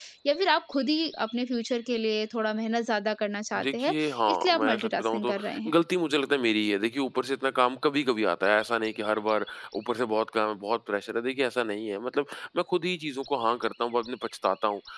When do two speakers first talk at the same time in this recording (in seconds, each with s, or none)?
3.5 s